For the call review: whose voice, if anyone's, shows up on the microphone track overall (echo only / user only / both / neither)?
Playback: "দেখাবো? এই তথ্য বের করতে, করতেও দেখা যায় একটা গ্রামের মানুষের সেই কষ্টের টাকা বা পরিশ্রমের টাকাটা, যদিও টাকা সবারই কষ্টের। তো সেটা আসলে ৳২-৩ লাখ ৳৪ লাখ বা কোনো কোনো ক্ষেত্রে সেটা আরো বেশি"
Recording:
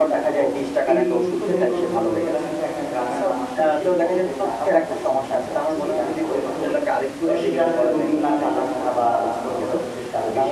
both